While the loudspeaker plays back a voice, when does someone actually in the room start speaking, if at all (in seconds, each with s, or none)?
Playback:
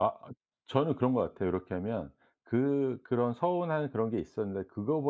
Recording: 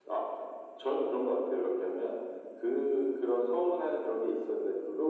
none